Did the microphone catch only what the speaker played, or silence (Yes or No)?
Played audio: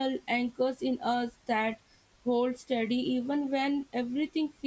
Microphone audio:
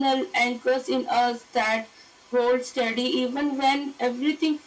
Yes